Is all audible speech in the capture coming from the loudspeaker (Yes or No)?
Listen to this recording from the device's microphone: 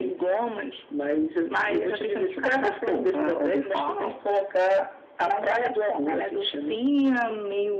Yes